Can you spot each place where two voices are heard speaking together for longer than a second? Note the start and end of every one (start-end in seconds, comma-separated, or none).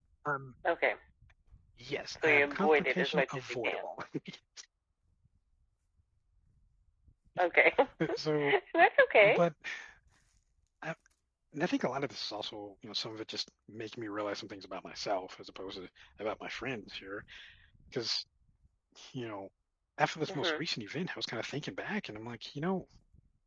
2.2-3.8